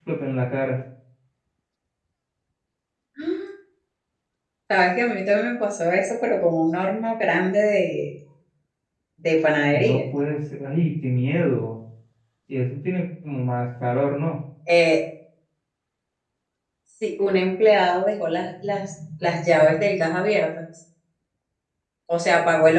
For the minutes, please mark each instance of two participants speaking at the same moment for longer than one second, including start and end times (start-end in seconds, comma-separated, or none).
none